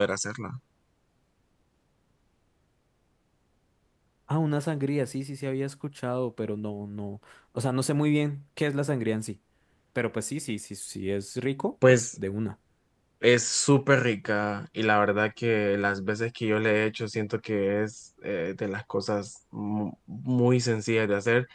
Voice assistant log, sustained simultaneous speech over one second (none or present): none